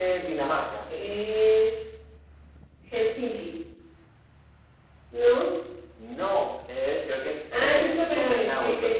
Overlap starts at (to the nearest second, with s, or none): 8 s